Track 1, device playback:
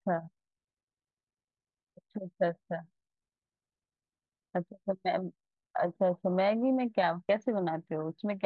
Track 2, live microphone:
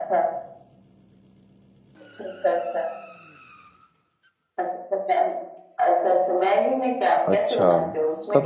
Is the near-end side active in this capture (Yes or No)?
Yes